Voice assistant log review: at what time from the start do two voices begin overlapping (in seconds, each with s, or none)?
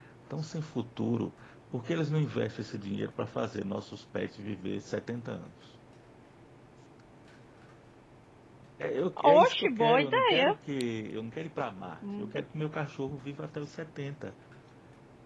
9.2 s